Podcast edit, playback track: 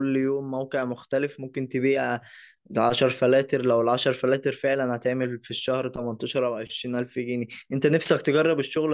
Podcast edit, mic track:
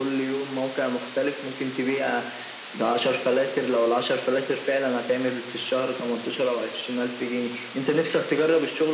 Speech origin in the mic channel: echo only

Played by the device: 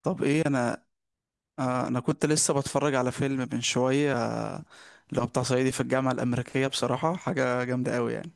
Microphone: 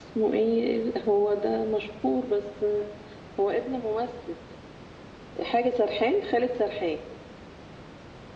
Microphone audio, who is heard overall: user only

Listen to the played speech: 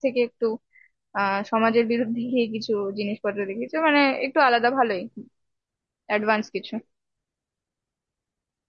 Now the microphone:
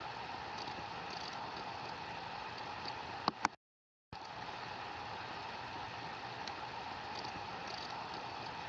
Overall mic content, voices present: neither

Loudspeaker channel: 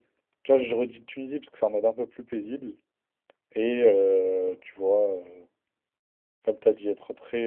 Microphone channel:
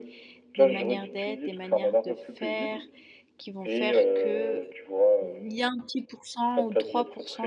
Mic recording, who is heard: both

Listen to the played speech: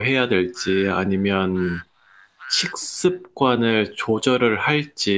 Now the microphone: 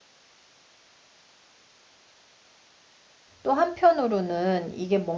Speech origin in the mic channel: user only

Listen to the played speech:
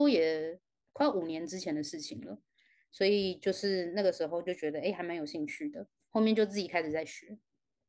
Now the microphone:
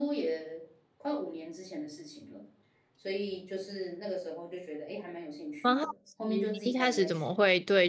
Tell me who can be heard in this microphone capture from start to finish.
both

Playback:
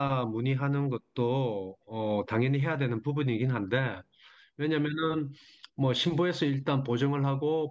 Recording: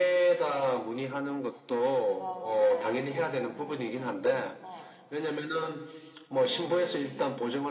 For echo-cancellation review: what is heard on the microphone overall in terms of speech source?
both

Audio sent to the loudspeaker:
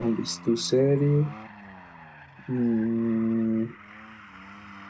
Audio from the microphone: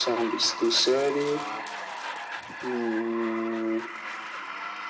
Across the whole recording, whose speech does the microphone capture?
echo only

